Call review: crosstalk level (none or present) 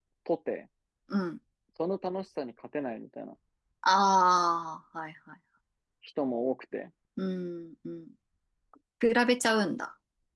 none